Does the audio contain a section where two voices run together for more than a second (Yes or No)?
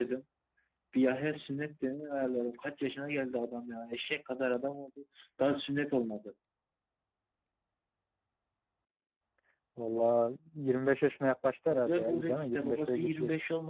Yes